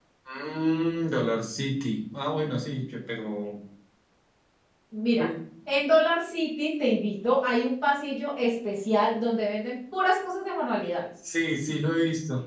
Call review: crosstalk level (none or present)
none